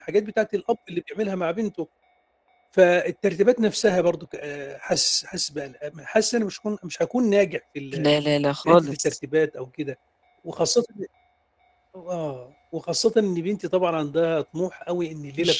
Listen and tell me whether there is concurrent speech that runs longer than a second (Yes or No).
No